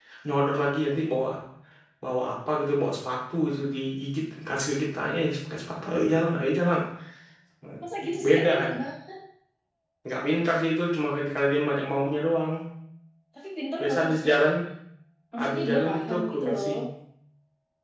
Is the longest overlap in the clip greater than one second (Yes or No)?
Yes